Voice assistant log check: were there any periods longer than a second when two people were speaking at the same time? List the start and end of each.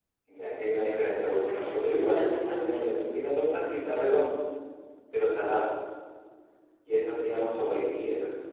1.1-2.8

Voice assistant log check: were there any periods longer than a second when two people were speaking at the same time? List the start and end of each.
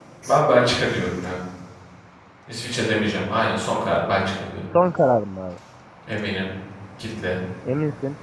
none

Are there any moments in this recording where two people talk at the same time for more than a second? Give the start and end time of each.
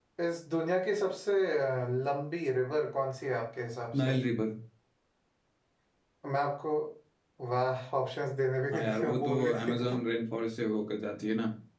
8.7-9.9

